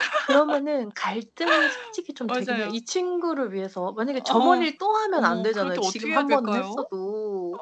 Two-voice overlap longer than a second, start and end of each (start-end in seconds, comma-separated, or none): 5.1-6.8